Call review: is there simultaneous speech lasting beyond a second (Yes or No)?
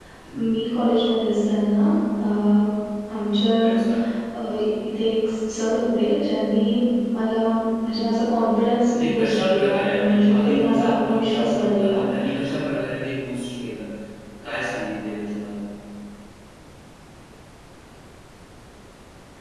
Yes